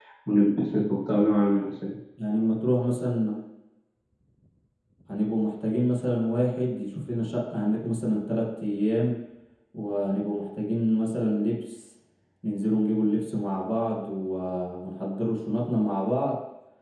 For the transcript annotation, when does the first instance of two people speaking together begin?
none

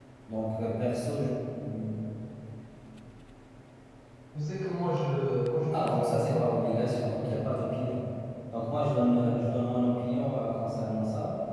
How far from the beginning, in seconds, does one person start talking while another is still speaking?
5.7 s

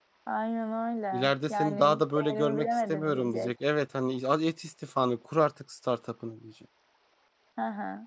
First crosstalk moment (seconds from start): 1.1 s

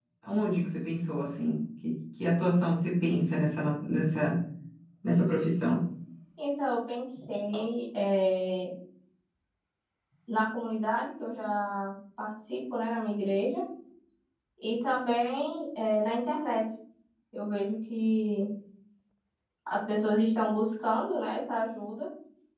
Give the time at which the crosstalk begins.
none

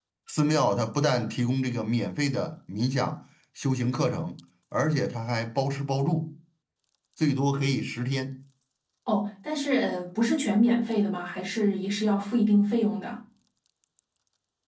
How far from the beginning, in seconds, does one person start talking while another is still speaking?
none

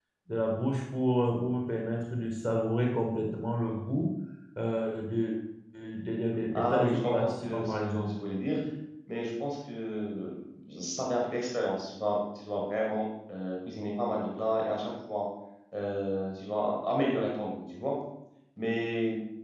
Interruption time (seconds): 6.5 s

